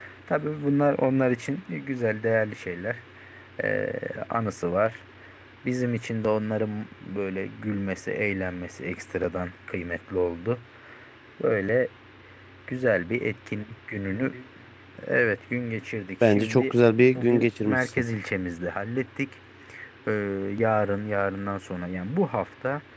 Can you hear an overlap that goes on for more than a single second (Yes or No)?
Yes